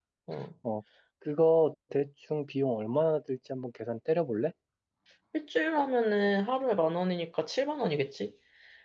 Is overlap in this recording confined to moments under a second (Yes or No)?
Yes